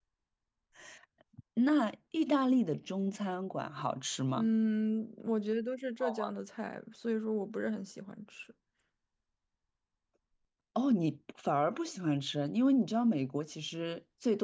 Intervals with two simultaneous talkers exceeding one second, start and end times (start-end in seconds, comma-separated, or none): none